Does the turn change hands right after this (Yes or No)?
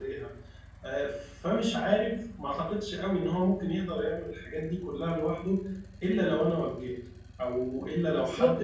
Yes